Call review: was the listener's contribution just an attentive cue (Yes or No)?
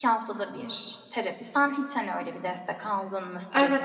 No